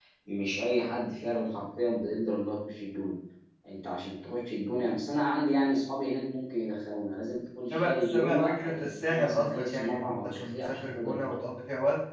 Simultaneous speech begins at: 7.7 s

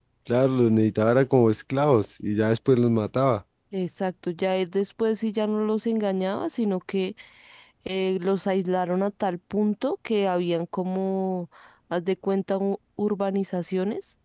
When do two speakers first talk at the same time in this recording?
none

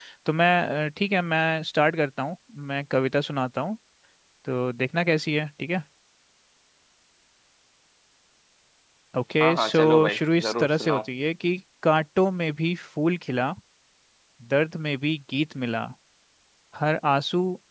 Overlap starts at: 9.4 s

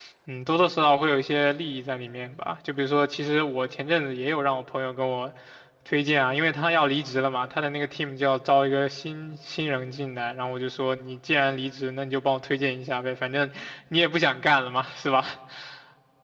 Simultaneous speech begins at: none

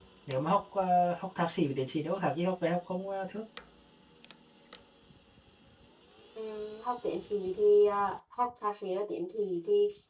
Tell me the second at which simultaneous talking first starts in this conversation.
none

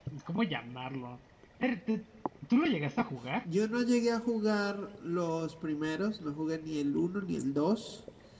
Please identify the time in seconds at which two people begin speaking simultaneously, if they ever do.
none

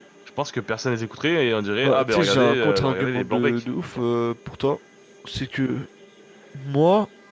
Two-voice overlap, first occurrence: 1.8 s

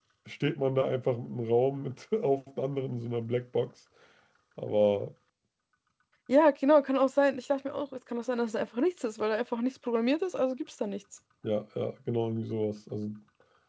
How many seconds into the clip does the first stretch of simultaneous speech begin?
none

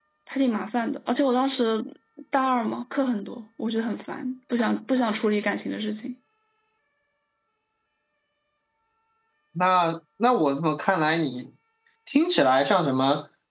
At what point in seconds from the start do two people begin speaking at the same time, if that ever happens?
none

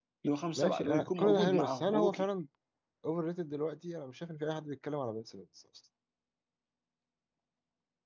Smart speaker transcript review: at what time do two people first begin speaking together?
0.6 s

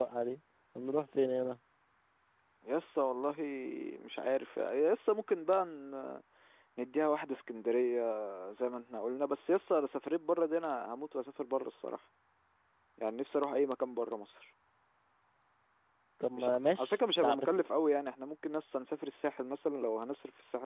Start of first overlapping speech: 16.3 s

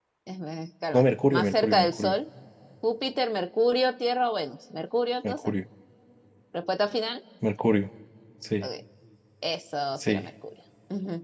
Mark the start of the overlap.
0.9 s

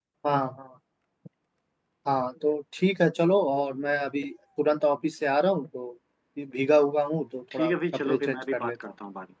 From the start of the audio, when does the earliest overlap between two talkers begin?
7.5 s

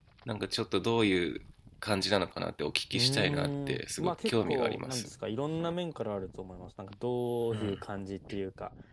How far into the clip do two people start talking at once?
2.9 s

